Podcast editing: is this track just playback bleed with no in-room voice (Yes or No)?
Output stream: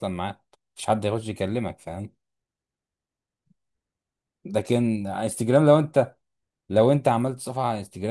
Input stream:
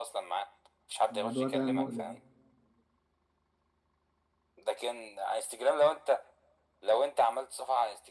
No